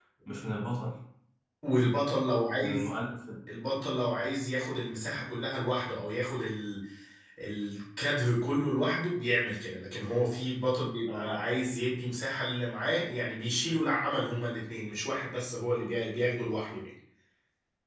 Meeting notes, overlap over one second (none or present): none